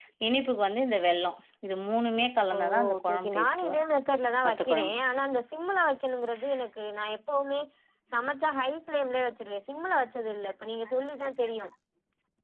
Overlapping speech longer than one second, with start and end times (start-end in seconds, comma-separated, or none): 2.5-3.8